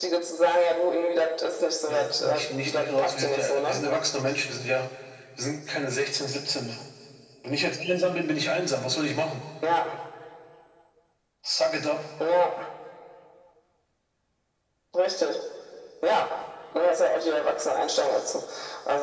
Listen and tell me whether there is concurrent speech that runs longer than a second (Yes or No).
Yes